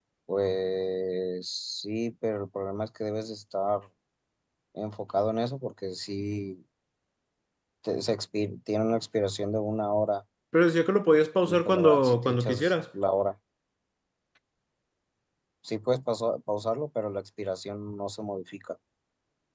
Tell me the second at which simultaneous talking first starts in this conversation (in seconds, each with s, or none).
11.4 s